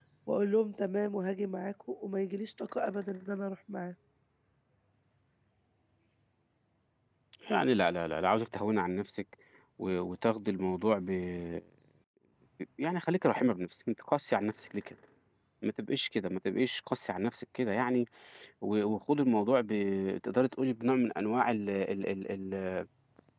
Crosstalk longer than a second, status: none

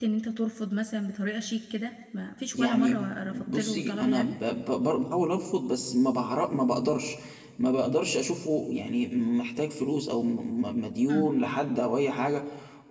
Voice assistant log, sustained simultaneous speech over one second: present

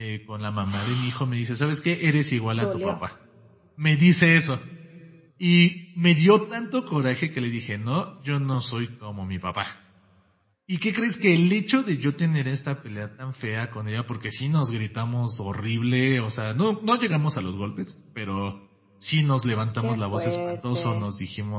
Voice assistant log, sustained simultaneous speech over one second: present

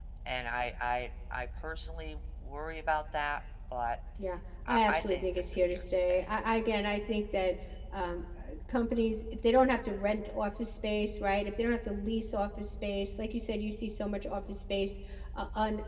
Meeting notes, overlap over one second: present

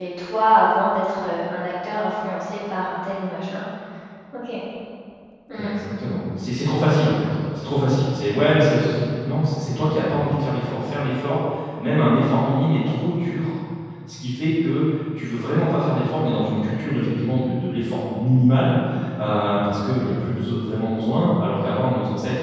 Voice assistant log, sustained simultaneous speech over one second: none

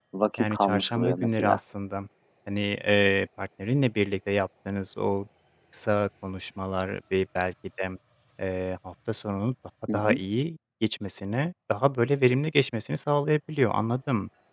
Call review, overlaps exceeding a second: present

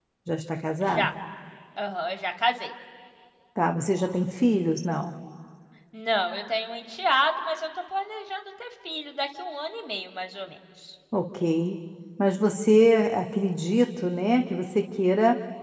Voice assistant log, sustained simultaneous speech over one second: none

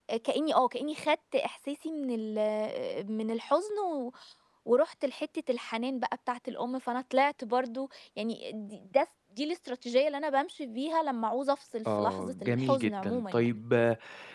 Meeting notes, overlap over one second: present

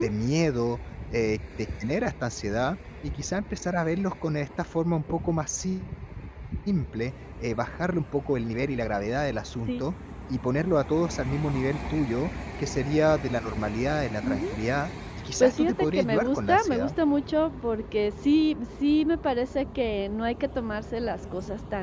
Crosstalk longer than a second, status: present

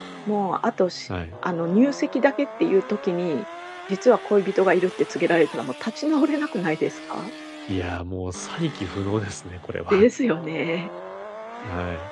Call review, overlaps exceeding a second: none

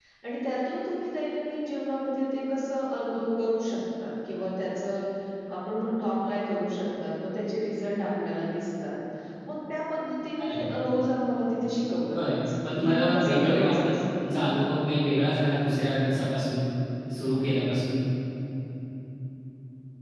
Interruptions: present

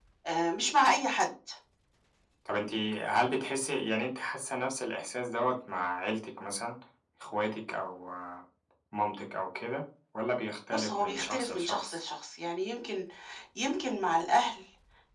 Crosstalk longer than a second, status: present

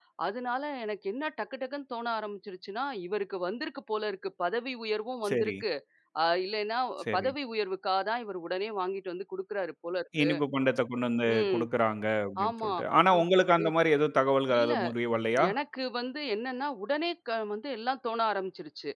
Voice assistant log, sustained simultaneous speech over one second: none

